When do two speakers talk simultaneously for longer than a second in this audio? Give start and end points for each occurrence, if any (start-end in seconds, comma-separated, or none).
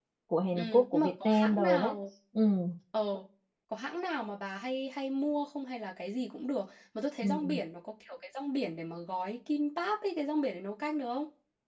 0.5-2.0